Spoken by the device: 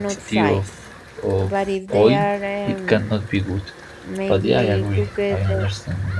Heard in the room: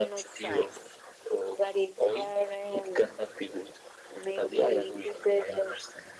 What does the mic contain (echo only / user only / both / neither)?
echo only